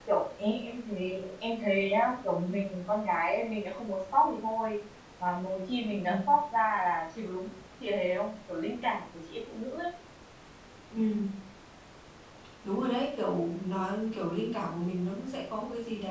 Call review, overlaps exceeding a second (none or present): none